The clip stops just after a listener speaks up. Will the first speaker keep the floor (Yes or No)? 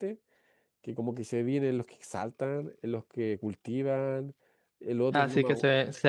No